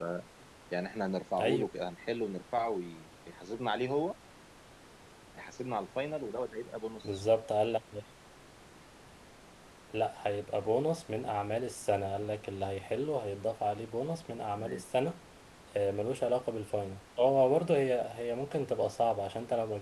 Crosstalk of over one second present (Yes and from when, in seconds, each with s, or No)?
No